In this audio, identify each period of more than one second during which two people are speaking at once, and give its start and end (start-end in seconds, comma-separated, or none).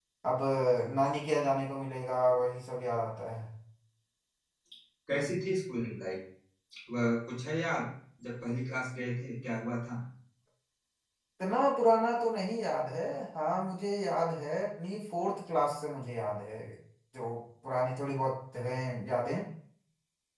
none